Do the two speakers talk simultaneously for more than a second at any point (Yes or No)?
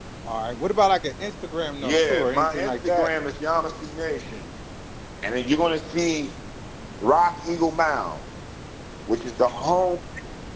Yes